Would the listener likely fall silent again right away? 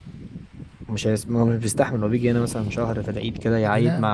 Yes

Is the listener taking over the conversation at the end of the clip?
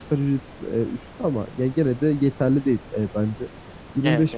No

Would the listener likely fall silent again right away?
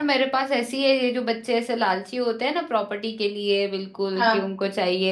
Yes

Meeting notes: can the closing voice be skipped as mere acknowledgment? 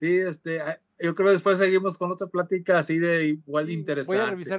No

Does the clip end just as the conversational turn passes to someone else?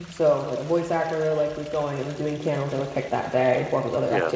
No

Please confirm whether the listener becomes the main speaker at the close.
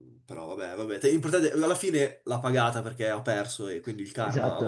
Yes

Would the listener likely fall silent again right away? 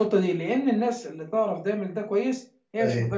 Yes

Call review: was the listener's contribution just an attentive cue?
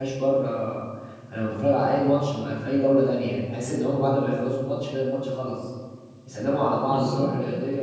Yes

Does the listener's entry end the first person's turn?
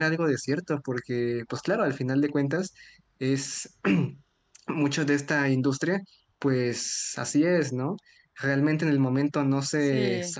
No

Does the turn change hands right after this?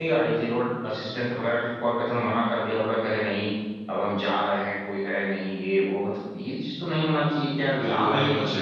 Yes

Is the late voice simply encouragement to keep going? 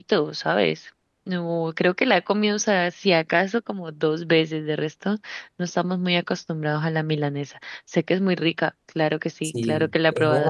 No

